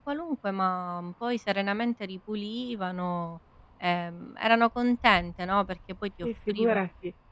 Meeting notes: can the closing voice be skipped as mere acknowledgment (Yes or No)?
No